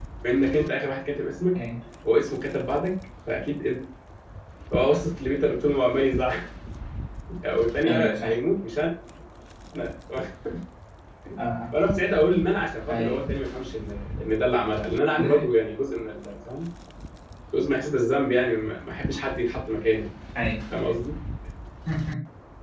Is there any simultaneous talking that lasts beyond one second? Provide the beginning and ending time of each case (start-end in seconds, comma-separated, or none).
none